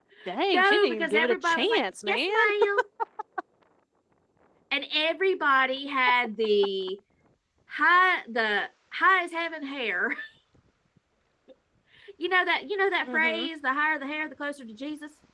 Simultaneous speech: Yes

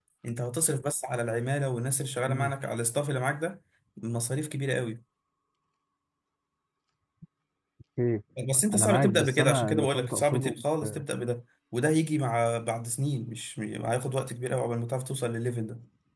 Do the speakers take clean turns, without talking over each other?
No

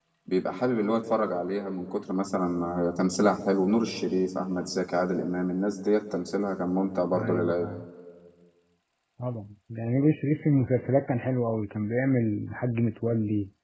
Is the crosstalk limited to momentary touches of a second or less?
Yes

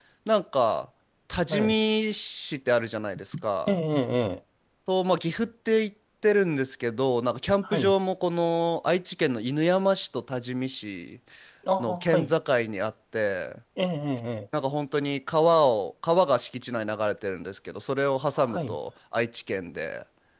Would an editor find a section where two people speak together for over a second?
No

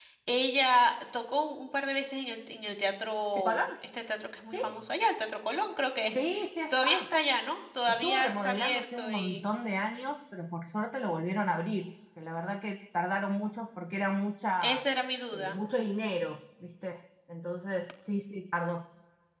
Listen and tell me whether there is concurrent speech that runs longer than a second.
Yes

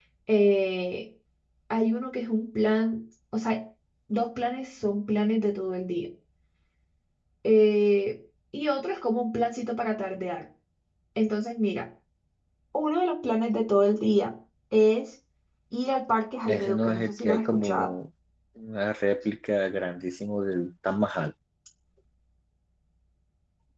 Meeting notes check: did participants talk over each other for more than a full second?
Yes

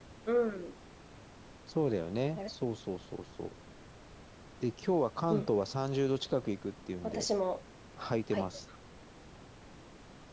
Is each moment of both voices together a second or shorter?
Yes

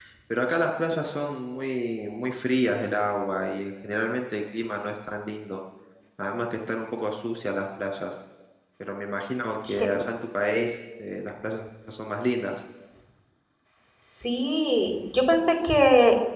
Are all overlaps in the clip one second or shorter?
Yes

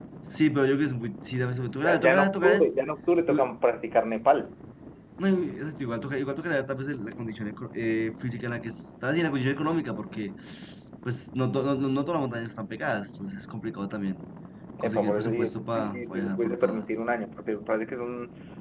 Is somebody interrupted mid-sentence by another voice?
Yes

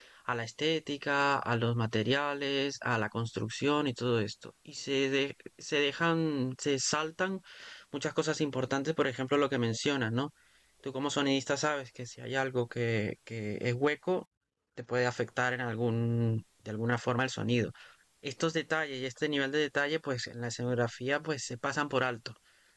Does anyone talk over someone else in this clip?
No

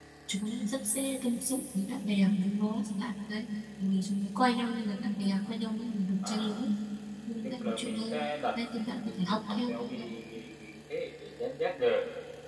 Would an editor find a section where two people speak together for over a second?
Yes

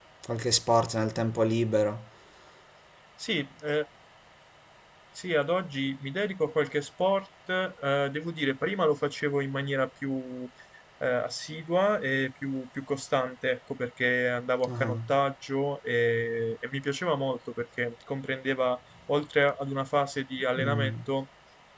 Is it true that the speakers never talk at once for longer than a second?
Yes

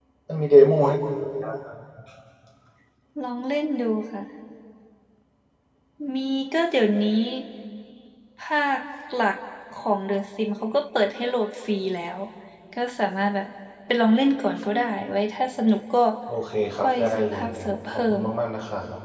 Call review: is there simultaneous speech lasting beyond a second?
Yes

